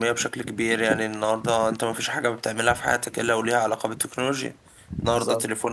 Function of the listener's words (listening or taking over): listening